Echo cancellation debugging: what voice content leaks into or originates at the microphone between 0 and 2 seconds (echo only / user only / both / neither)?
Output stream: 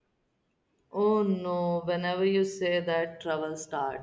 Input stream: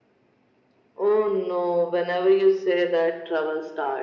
echo only